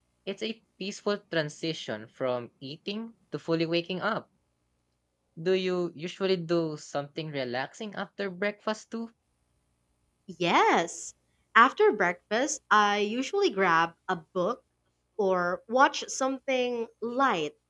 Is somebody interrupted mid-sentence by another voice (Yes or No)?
No